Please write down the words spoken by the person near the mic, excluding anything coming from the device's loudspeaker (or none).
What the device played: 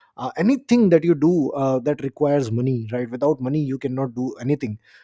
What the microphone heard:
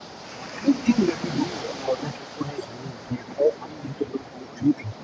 none